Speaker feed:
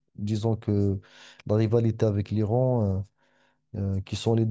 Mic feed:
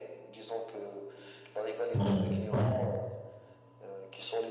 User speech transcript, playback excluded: c'est vrai. Ouais.

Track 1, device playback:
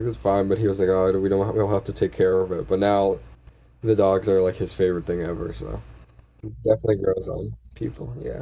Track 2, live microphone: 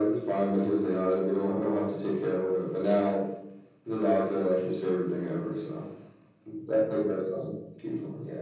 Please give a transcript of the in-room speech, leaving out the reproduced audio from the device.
none

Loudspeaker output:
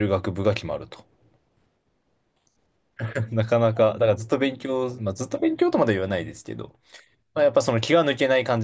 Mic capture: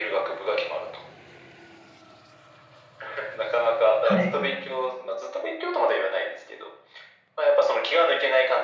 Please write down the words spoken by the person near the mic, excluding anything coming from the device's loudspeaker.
はい。

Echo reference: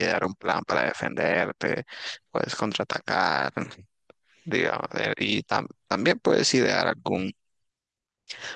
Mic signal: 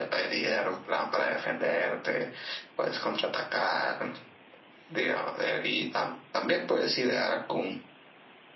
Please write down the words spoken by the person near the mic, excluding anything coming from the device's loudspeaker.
none

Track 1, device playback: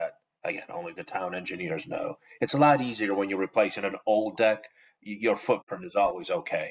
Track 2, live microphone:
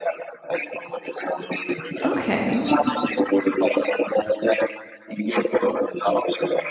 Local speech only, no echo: Okay.

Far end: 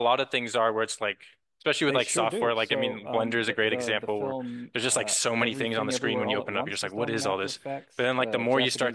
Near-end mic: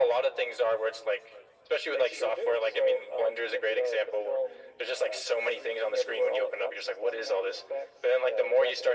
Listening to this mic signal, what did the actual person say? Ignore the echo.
none

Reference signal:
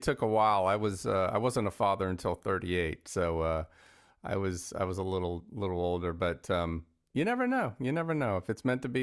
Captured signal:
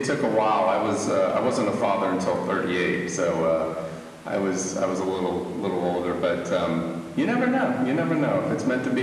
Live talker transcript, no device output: none

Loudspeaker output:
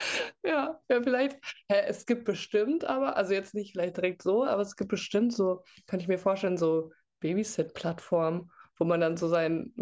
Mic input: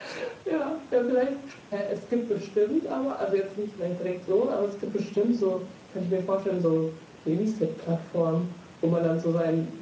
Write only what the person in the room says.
none

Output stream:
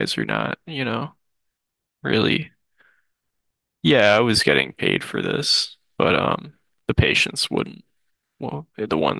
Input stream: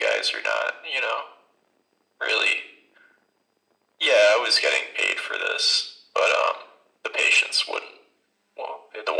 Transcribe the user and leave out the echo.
none

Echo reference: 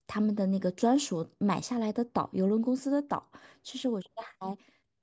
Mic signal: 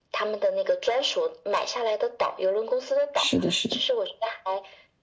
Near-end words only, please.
是的，是的，

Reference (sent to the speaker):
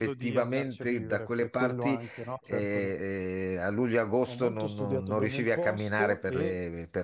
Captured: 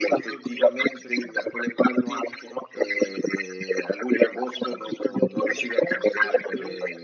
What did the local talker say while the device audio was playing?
none

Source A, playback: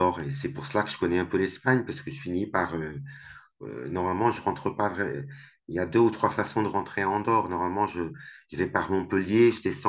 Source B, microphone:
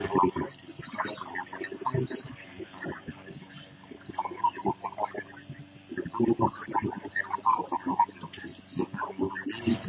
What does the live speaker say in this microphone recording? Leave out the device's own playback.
none

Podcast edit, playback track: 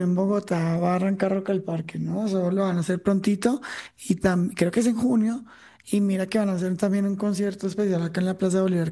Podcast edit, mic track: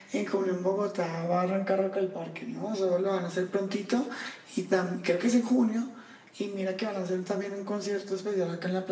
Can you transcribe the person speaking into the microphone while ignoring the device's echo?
none

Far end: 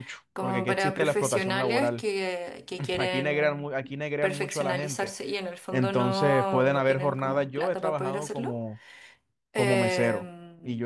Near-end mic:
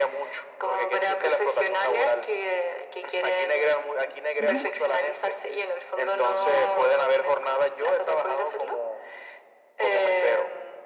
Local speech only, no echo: ujú,

